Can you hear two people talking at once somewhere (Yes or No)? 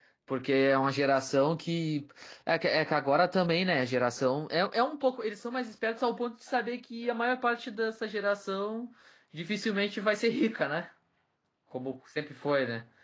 No